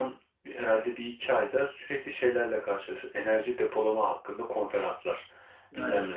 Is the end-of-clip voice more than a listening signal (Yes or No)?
No